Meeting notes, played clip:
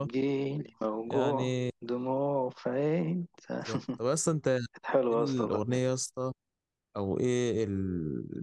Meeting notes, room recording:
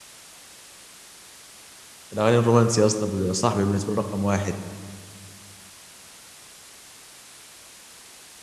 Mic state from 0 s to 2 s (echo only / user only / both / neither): neither